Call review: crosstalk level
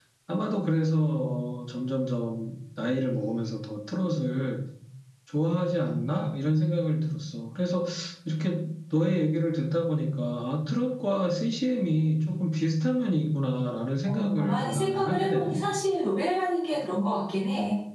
present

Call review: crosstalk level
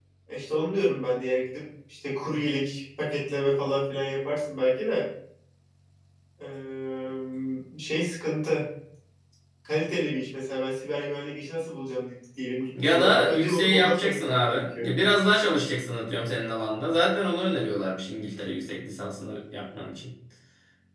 present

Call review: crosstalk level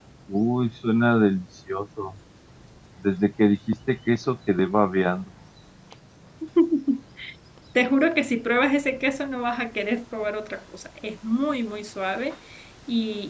none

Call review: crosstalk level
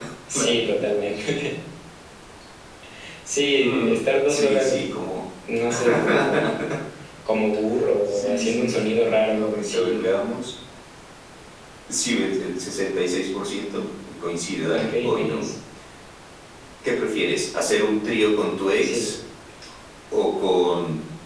present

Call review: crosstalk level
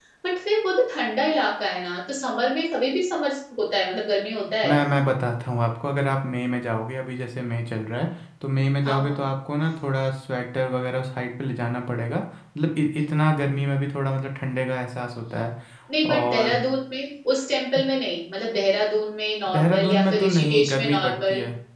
present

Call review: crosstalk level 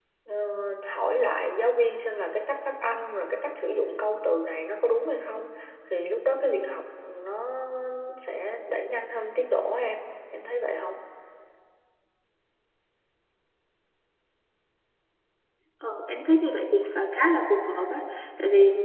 none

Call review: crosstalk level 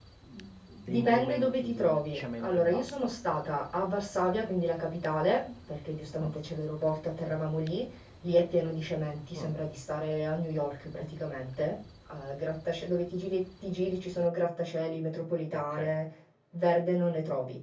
present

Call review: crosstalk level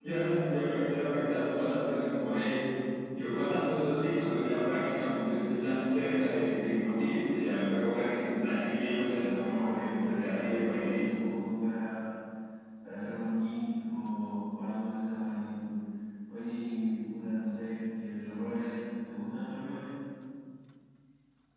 present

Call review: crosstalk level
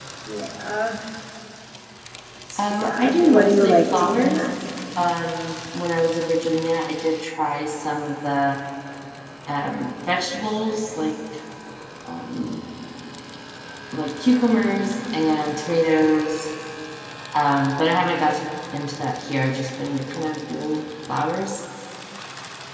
present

